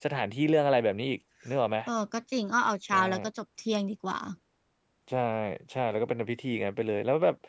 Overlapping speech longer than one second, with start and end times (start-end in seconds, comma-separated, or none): none